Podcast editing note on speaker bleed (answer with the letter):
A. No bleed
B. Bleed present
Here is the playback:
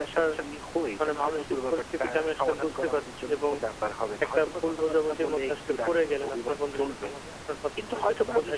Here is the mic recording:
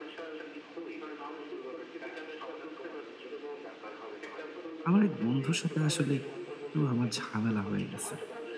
B